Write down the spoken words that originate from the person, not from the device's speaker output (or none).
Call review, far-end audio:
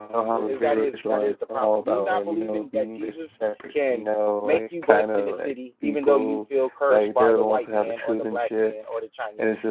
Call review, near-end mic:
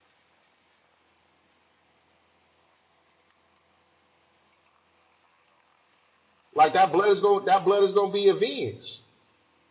Like that blood is going that blood is gonna be avenged.